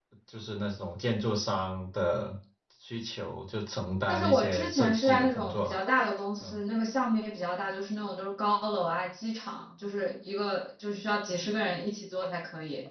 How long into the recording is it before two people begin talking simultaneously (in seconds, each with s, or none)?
4.1 s